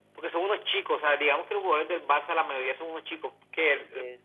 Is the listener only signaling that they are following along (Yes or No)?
Yes